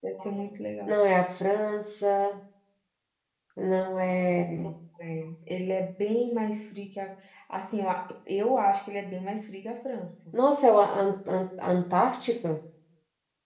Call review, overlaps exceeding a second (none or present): none